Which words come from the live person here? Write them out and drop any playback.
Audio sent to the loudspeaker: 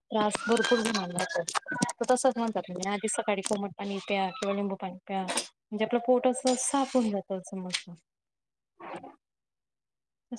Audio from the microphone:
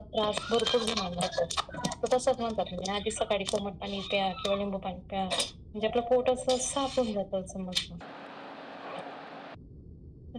none

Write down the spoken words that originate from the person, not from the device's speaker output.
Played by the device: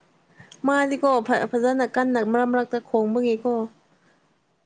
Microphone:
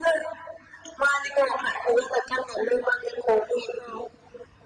none

